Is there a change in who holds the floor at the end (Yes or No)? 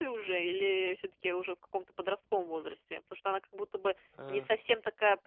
No